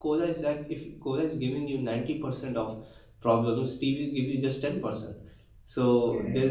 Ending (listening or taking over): listening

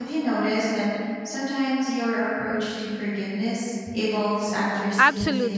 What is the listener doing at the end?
taking over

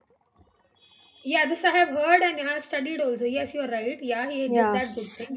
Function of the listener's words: taking over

